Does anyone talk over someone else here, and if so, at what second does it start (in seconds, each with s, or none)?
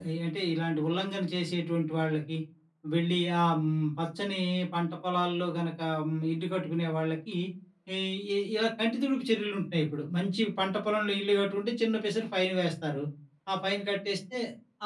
none